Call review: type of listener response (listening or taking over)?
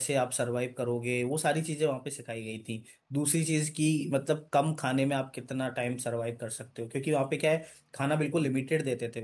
listening